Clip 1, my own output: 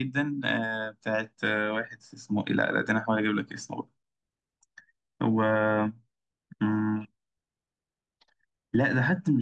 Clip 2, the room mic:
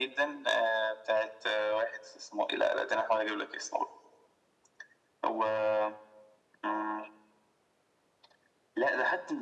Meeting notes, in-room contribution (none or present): none